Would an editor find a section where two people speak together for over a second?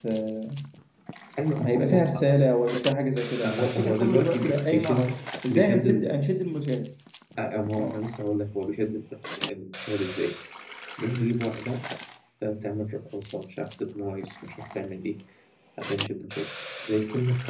Yes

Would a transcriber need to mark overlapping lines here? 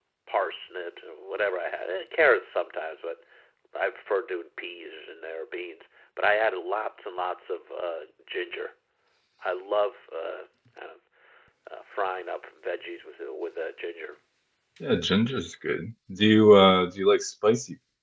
No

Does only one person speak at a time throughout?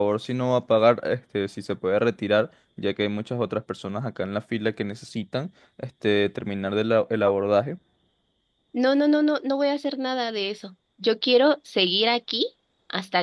Yes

